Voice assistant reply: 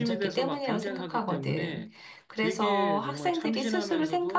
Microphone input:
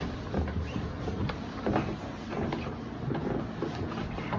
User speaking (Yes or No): No